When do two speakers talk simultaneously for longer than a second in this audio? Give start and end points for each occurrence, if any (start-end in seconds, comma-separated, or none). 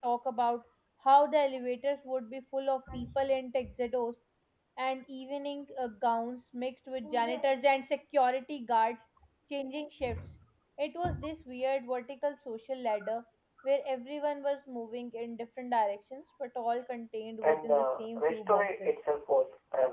17.4-18.9